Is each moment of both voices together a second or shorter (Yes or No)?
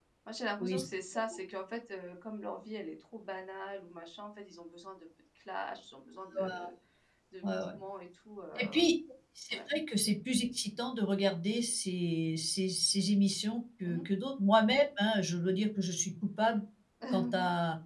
Yes